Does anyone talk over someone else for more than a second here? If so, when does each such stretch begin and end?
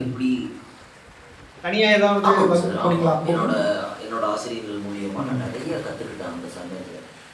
2.3-3.5

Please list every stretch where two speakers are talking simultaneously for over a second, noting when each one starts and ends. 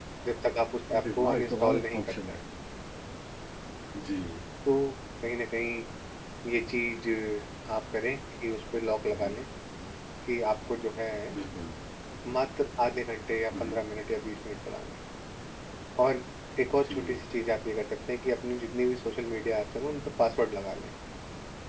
1.0-2.4

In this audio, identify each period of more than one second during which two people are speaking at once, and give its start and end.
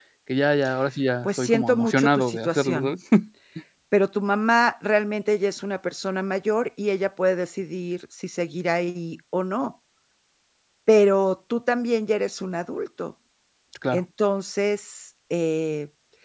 1.2-2.9

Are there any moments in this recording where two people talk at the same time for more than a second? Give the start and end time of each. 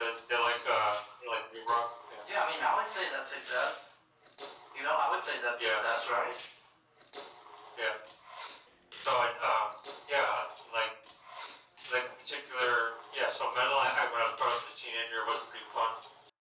none

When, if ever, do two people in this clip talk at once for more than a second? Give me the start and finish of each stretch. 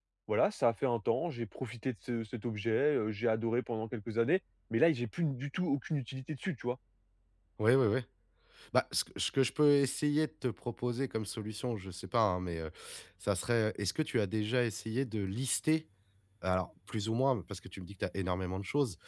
none

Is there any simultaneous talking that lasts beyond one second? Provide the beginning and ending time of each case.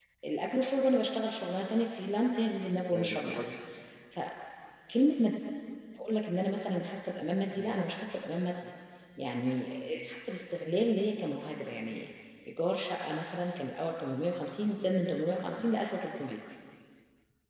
none

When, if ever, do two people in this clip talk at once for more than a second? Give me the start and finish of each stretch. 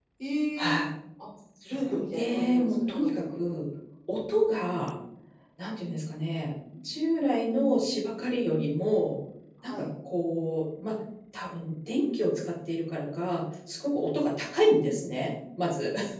1.6-3.6

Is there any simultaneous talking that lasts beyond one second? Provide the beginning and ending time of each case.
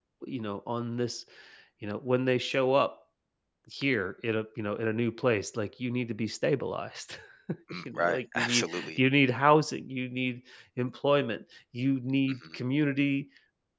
7.7-9.0

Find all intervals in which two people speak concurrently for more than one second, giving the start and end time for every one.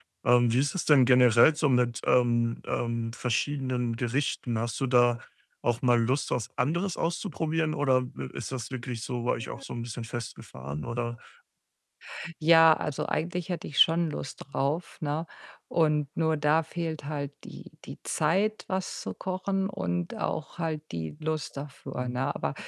none

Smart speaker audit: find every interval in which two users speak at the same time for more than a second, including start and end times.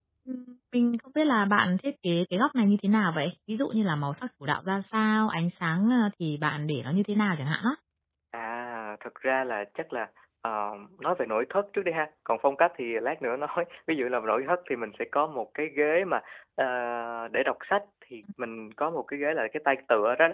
none

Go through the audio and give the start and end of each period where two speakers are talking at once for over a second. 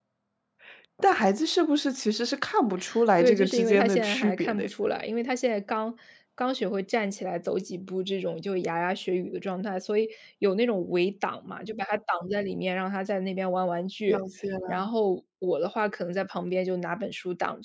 3.2-4.7

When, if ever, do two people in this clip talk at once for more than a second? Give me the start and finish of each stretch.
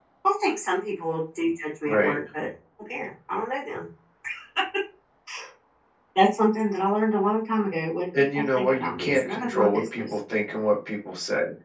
8.4-10.1

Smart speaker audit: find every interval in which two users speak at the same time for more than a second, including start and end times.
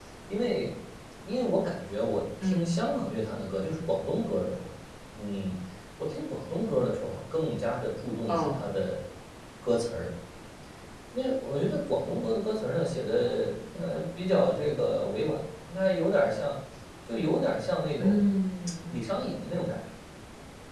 none

